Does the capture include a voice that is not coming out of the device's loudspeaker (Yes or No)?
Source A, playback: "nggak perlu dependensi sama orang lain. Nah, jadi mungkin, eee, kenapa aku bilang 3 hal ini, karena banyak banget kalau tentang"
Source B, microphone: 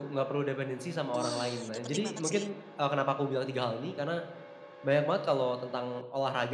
Yes